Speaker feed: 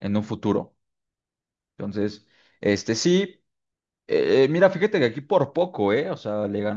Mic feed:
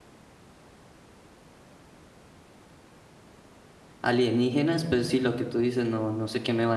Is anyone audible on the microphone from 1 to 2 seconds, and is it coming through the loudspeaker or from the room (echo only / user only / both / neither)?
neither